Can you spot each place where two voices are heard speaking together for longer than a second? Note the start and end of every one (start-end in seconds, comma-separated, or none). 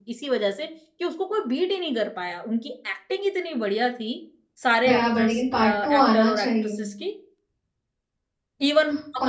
4.8-6.8